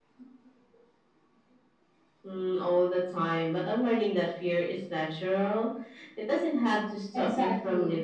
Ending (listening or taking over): taking over